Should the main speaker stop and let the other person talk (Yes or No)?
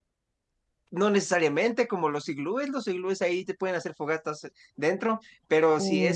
No